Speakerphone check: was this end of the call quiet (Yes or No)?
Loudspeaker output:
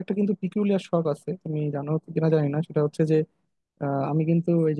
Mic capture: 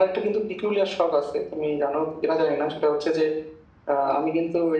Yes